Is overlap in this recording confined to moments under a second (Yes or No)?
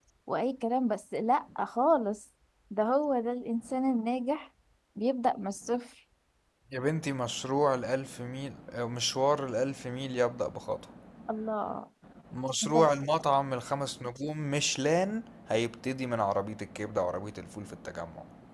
Yes